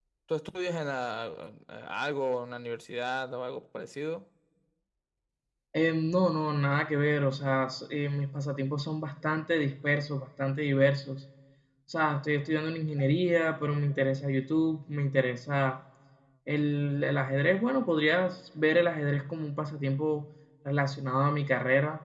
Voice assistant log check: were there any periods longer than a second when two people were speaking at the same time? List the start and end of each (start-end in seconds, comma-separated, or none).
none